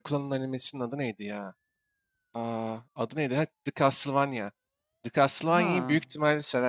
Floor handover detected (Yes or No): No